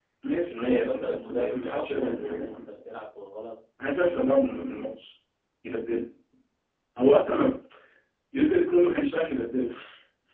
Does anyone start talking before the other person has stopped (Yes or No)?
Yes